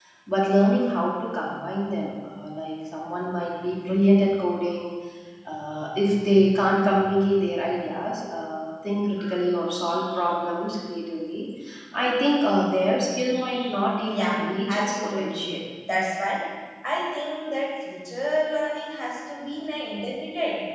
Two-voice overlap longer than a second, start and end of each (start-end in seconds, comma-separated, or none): 14.1-15.5